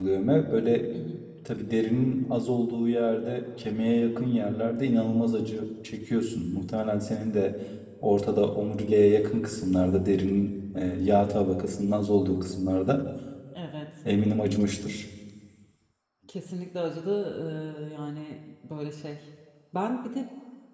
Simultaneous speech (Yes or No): No